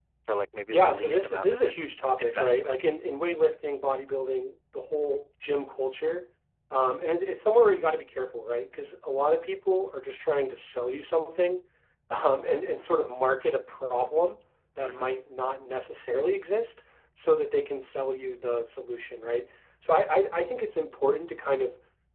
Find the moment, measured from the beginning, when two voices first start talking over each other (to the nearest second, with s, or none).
1 s